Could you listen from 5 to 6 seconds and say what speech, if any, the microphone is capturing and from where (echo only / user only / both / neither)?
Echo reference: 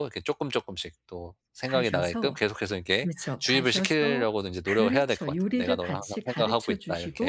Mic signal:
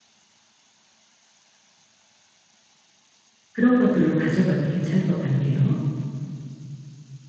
user only